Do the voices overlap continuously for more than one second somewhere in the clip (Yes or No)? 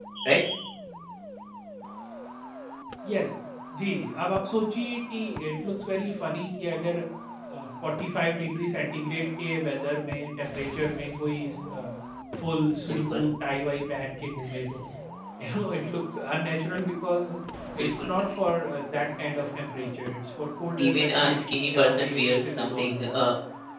Yes